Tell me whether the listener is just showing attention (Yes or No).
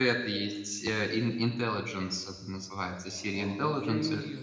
No